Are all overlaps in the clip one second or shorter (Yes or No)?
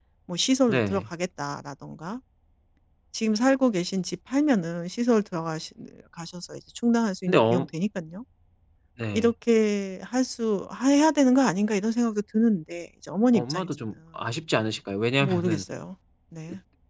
Yes